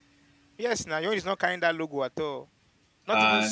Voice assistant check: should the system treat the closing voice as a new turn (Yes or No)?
Yes